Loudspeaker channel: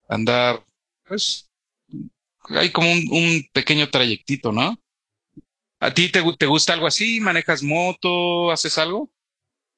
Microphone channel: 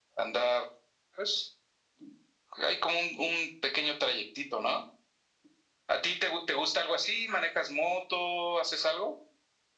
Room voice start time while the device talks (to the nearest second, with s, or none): none